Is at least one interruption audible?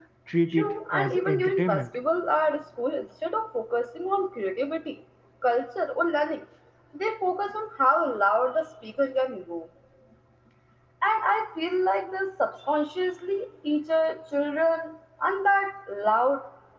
Yes, from 0.5 s

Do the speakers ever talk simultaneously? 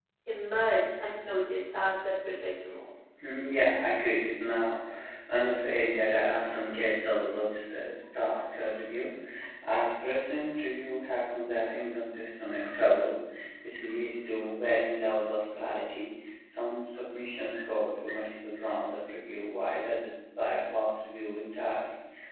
No

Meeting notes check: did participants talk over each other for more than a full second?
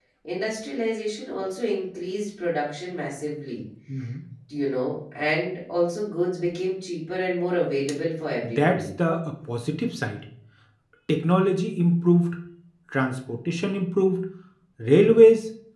No

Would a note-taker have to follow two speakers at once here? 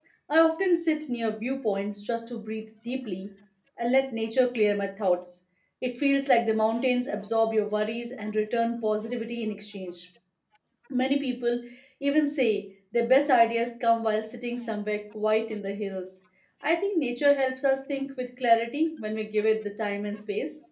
No

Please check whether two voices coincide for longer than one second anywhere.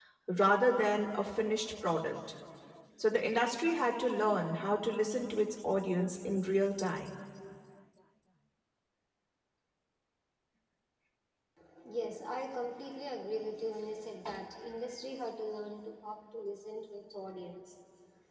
No

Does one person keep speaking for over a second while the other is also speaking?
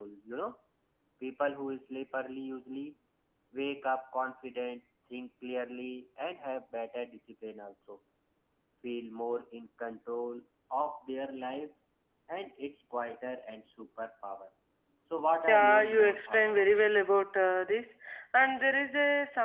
Yes, from 15.5 s

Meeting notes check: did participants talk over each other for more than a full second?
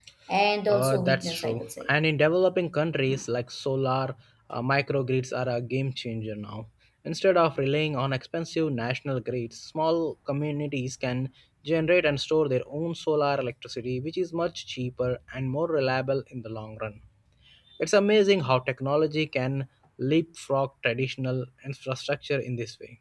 Yes, from 0.7 s

